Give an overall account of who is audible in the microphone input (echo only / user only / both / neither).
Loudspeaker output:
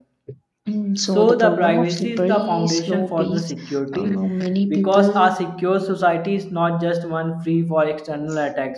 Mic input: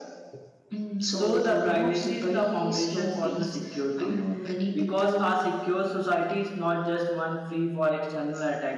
echo only